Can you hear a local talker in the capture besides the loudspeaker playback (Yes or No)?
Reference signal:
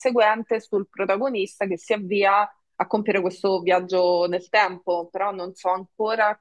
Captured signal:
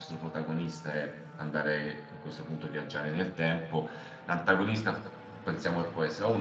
Yes